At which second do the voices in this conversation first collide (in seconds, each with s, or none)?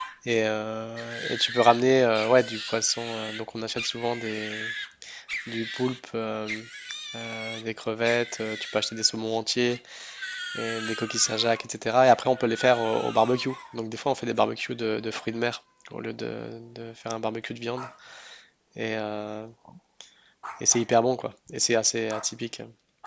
none